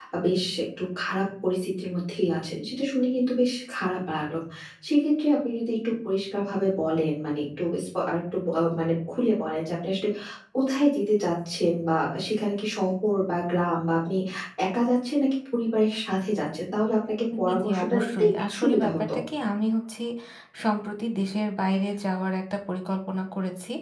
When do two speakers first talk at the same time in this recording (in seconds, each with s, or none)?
17.4 s